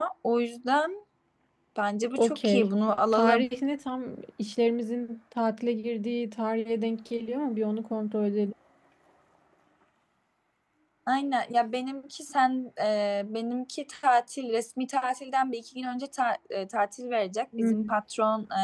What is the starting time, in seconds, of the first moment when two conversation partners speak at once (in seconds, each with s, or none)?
2.1 s